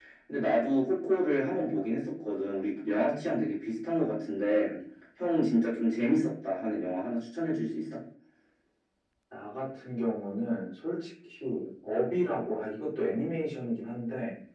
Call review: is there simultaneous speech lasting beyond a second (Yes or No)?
No